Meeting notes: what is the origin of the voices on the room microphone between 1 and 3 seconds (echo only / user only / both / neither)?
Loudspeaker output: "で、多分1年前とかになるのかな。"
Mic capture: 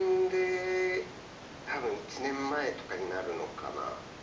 echo only